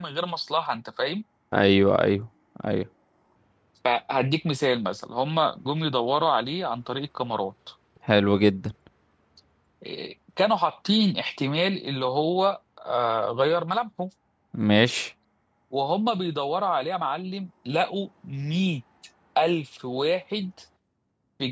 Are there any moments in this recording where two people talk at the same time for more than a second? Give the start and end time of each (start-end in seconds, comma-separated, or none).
none